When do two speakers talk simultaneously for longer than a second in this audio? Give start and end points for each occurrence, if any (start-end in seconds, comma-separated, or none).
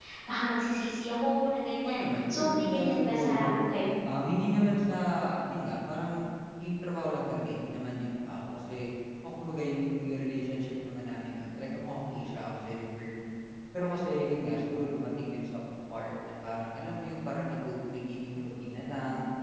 1.8-3.5